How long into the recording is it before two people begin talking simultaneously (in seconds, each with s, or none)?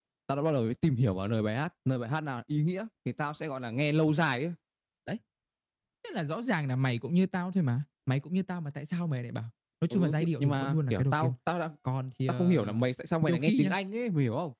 9.9 s